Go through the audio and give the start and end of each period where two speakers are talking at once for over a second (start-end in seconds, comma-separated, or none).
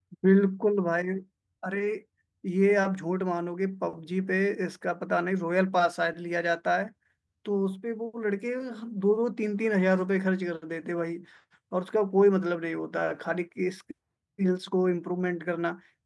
none